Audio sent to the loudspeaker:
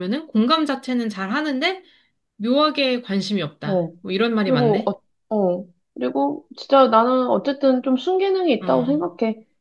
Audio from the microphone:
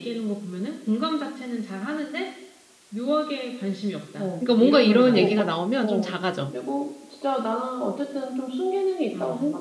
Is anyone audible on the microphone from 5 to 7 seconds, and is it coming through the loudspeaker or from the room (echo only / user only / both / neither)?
both